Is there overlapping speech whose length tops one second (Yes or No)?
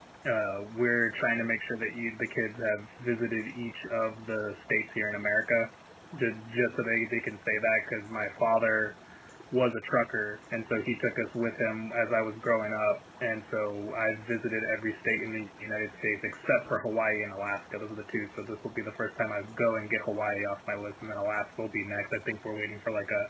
No